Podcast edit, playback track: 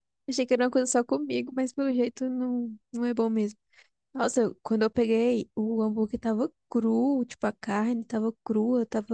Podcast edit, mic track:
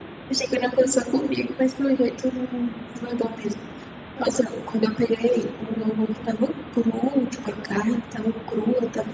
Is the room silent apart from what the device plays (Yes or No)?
Yes